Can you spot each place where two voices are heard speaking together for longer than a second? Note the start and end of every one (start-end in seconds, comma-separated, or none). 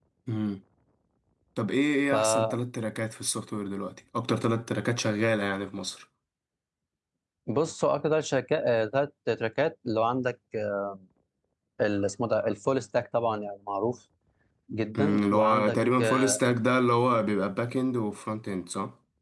15.0-16.4